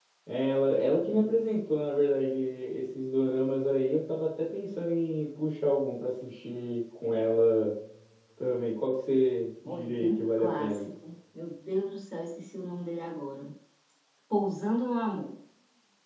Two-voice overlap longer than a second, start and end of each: 9.7-10.9

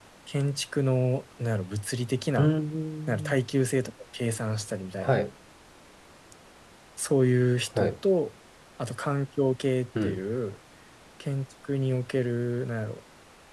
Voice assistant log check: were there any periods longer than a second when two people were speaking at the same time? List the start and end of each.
none

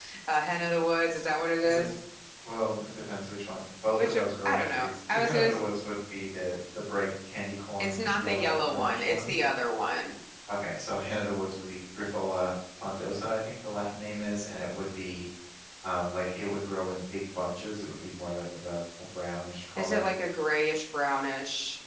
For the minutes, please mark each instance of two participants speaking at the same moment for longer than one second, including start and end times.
4.0-5.6, 7.8-9.3

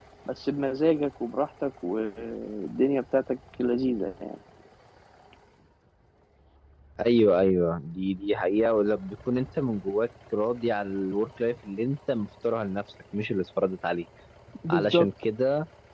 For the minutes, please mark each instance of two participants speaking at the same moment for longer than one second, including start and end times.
none

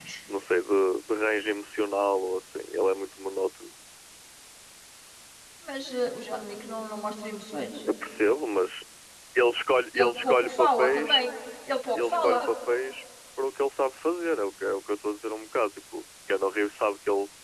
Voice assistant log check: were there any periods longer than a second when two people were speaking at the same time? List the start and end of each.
9.9-11.2

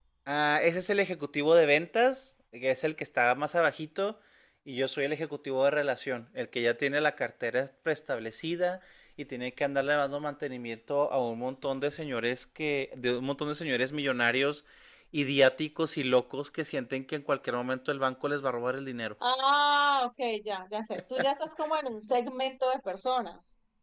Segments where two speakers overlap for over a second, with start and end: none

